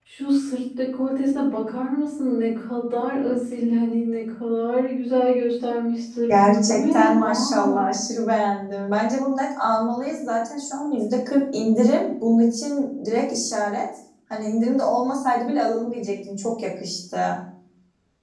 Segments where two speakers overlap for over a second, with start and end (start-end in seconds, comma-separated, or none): 6.3-7.8